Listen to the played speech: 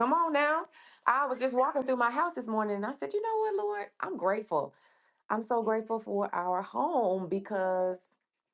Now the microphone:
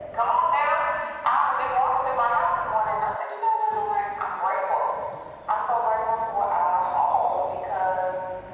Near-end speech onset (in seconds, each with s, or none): none